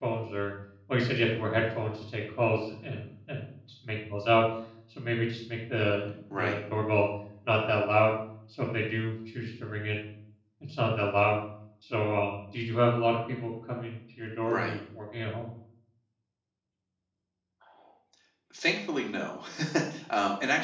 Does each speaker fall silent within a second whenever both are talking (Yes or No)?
Yes